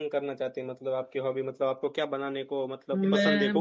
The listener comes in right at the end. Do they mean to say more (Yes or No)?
Yes